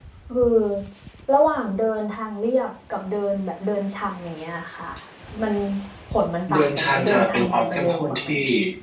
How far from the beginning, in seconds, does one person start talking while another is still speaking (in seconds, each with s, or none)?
6.5 s